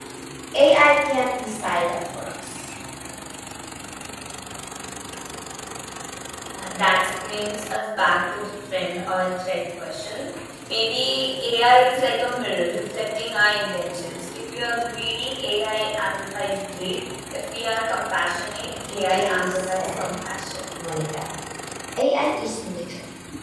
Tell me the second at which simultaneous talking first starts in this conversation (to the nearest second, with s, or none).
19 s